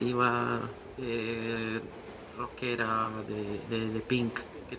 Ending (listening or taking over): taking over